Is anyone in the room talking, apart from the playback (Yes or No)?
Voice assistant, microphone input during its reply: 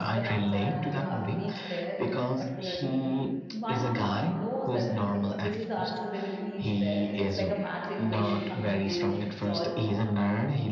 Yes